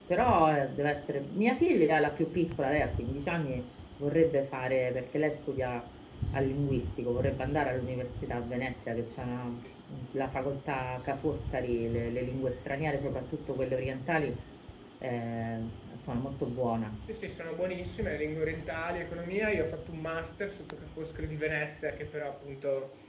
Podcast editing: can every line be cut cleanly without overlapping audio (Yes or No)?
Yes